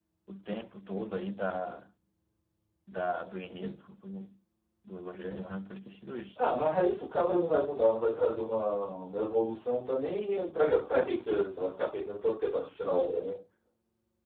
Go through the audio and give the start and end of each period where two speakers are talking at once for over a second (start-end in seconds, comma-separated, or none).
none